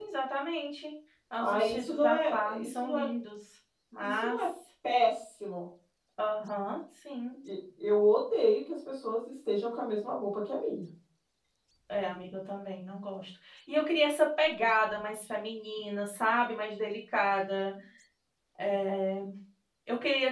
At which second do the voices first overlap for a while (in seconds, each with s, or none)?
1.4 s